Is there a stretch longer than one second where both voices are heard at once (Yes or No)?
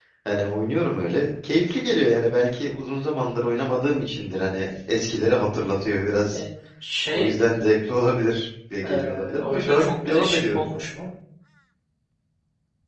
Yes